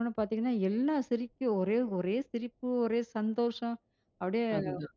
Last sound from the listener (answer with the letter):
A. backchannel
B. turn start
A